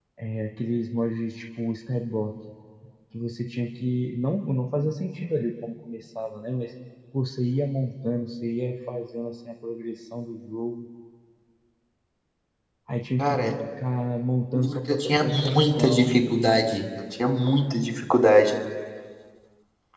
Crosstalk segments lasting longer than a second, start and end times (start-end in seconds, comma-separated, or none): 14.6-16.1